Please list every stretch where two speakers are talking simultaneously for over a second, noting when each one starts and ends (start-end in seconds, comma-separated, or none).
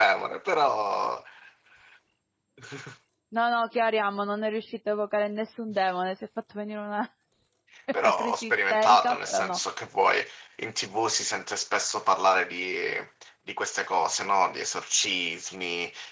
8.1-9.6